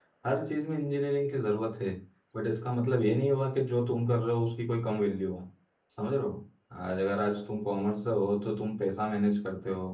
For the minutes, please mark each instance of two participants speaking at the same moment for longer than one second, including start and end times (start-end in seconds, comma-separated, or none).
none